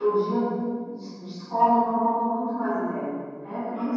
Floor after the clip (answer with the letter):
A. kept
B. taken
B